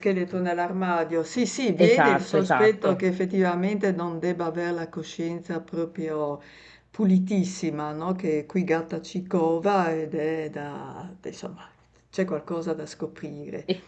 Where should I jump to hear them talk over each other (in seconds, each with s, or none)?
1.8 s